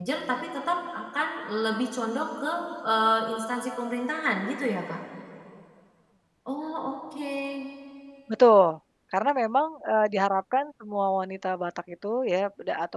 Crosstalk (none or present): none